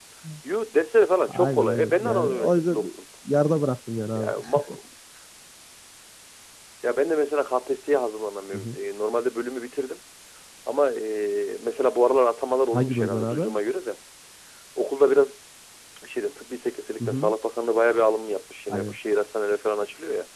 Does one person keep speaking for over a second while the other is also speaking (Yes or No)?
Yes